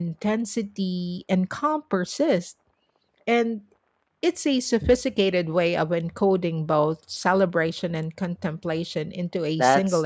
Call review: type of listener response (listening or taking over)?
taking over